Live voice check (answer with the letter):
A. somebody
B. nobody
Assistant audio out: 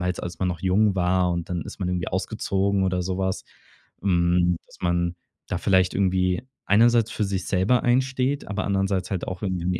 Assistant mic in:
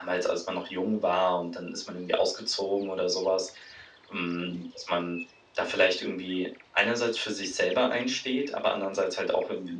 B